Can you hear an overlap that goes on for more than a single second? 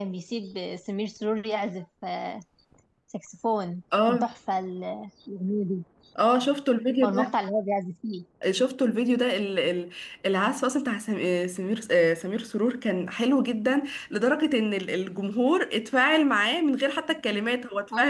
No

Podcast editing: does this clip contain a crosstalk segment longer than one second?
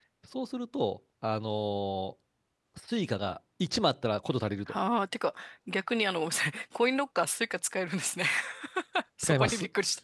No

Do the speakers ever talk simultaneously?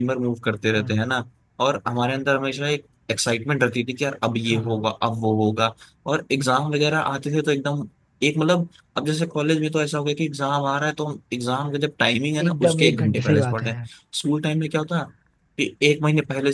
Yes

